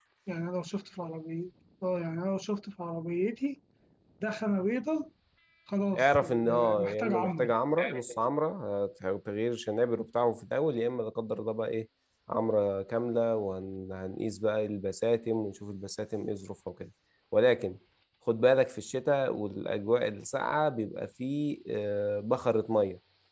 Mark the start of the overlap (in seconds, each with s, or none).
6.0 s